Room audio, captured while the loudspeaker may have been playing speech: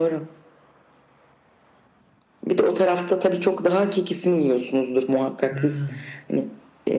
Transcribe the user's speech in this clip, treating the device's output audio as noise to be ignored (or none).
Hmm,